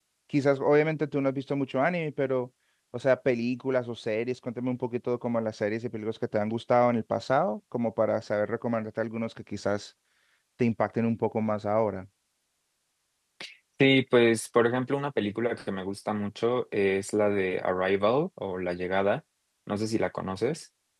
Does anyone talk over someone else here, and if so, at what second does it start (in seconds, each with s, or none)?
none